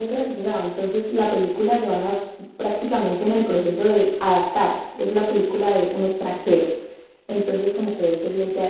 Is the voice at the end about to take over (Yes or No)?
No